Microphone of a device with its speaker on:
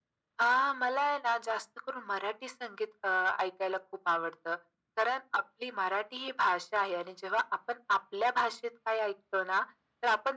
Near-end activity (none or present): none